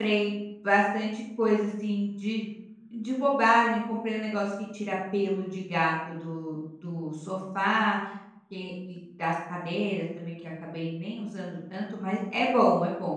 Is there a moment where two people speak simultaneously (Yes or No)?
No